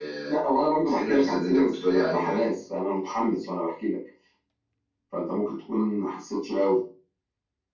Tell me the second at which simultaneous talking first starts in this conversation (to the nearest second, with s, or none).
1 s